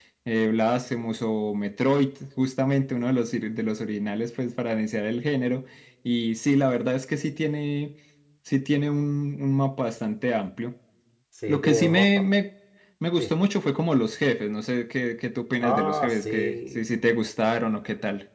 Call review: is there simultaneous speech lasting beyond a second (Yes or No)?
Yes